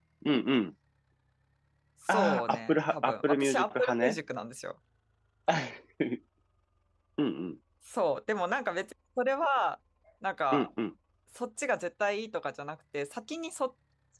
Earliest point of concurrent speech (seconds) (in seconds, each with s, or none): 2.1 s